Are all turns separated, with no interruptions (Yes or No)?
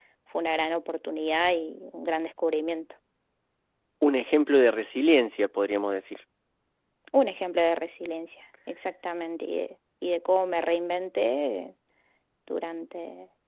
Yes